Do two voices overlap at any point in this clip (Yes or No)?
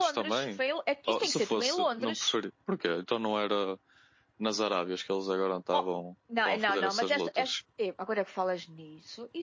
Yes